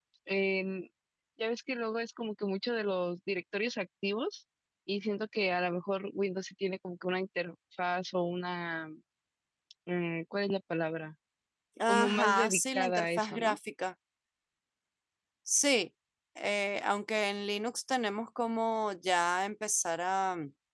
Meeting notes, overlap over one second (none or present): present